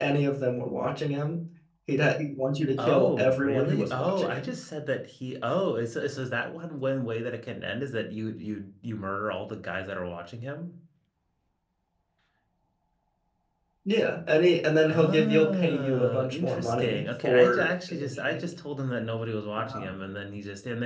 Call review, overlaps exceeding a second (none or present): present